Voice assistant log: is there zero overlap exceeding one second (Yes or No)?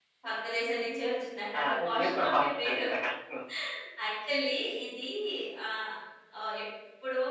No